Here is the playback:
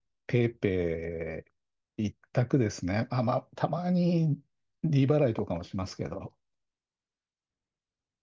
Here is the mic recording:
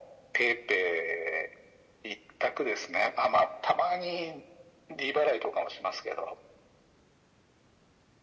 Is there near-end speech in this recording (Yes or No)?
No